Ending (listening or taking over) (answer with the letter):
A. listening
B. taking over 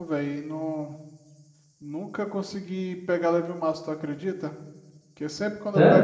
A